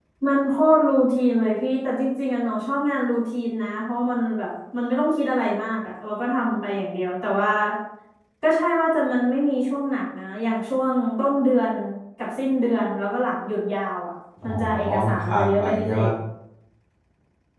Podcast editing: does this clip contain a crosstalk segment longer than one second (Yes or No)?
Yes